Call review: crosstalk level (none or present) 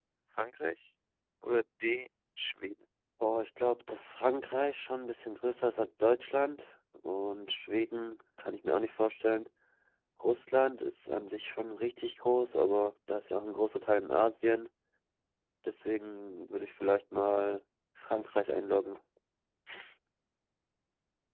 none